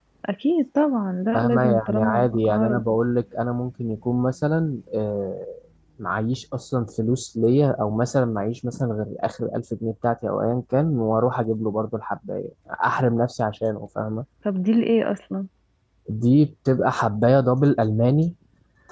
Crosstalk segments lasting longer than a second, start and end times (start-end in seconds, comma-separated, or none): 1.3-2.8